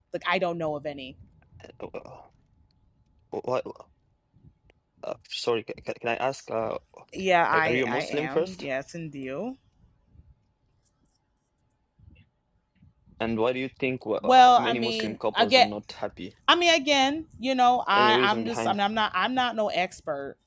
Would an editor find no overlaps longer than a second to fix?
No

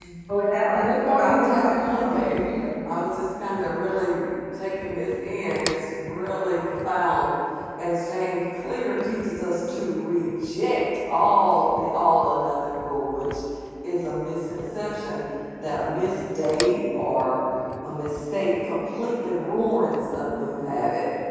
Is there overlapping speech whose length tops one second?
Yes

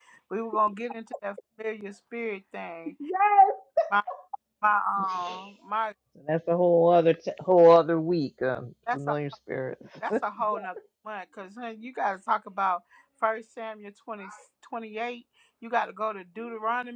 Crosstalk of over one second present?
No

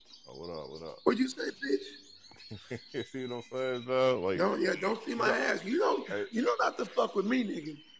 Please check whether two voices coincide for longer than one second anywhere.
No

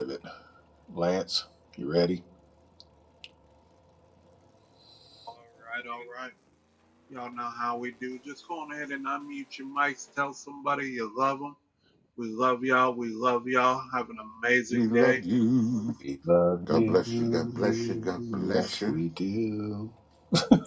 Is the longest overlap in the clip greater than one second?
Yes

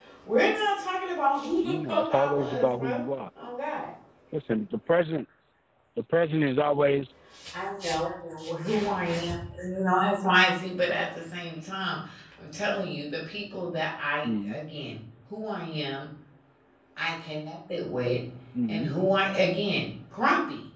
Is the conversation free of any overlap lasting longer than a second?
No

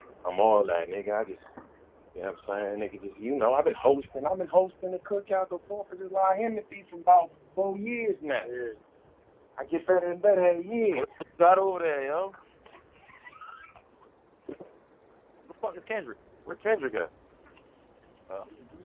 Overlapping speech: No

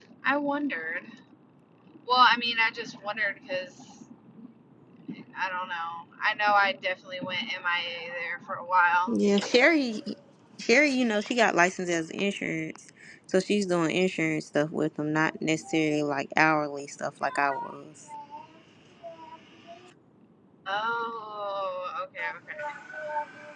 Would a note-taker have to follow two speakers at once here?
No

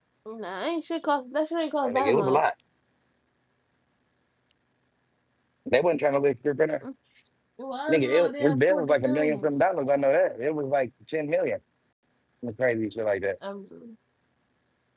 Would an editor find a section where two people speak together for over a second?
Yes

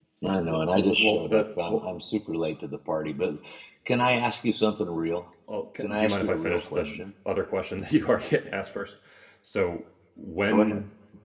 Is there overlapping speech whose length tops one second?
Yes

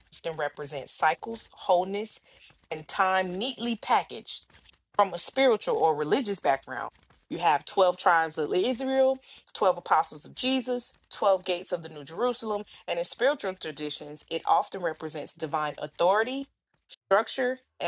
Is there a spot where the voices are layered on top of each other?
No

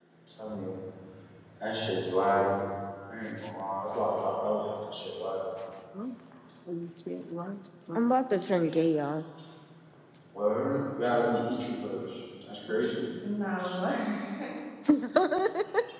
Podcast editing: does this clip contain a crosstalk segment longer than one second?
No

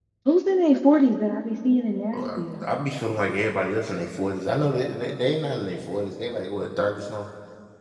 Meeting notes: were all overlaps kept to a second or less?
Yes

